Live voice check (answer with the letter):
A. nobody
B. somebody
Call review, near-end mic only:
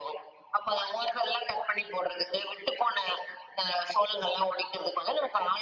A